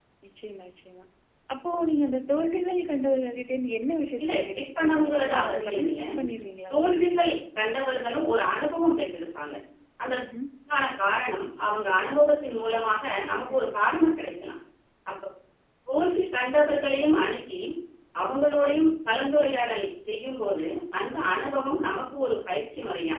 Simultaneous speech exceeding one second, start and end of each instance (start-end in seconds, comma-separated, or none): 4.2-5.9